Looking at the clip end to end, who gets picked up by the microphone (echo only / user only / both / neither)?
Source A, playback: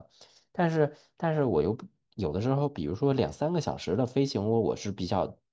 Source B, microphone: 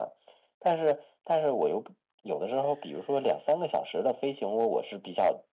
echo only